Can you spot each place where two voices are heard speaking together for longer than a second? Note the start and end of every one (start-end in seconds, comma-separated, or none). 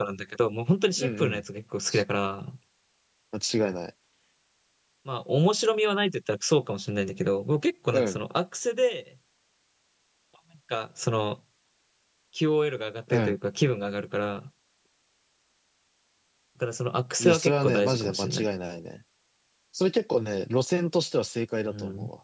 17.2-18.4